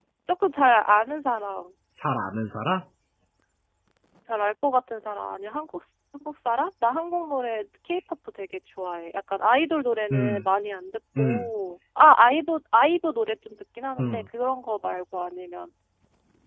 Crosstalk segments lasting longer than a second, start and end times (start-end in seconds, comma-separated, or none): none